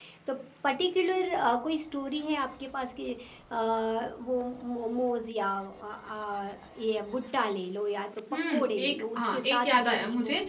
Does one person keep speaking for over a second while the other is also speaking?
Yes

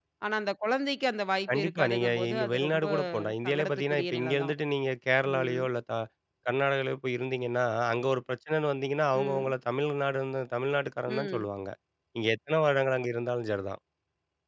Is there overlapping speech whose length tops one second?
Yes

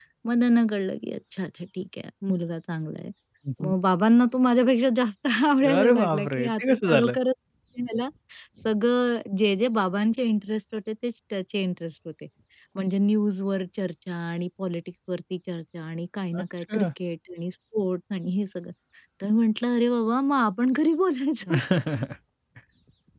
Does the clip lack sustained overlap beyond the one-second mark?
No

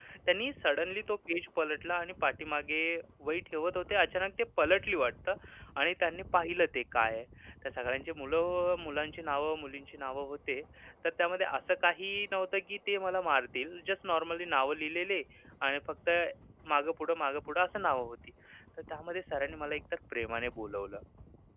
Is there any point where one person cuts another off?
No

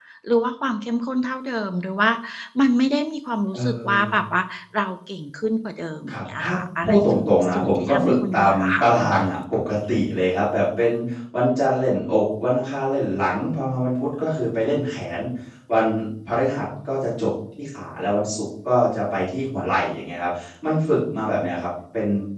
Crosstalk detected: Yes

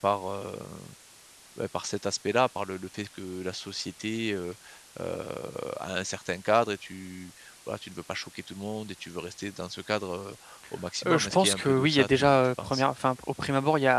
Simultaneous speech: Yes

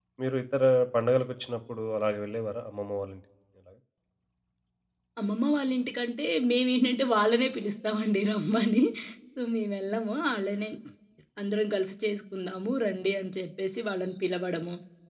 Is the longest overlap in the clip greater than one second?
No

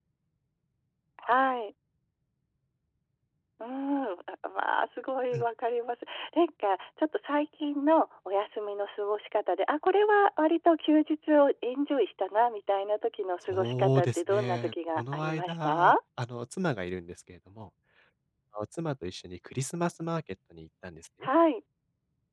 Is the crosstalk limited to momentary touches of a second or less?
No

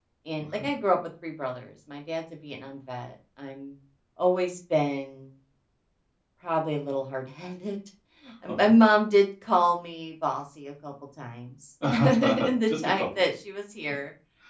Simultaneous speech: Yes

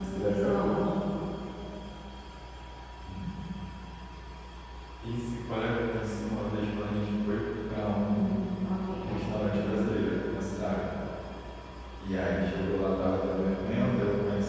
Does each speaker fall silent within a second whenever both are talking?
Yes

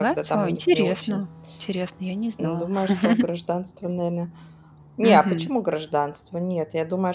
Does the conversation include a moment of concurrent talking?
Yes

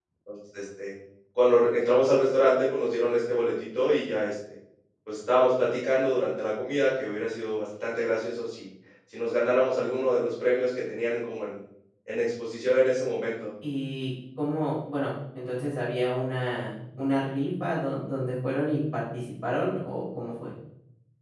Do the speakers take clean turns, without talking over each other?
Yes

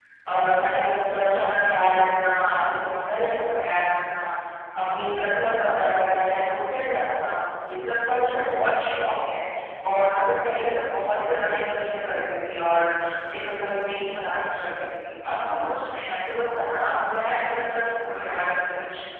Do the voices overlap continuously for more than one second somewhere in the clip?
No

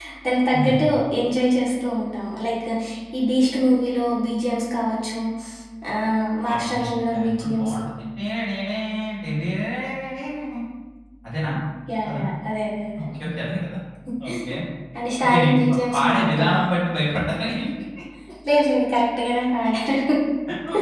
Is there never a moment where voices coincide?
No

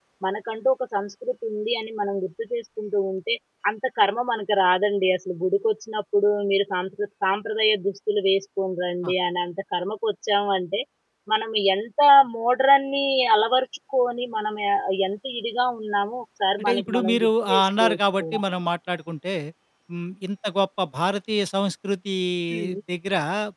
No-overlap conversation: No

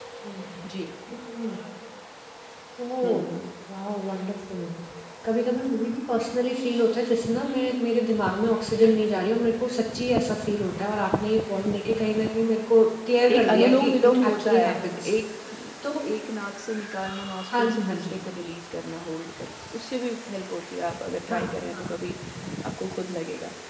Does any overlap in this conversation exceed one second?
Yes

